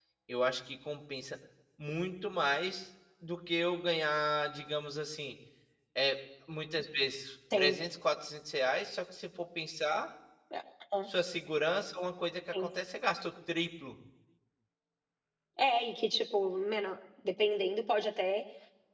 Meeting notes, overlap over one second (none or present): none